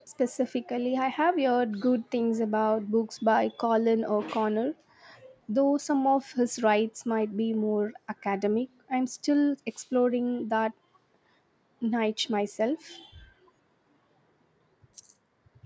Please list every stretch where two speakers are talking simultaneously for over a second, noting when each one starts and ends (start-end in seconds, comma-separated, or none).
none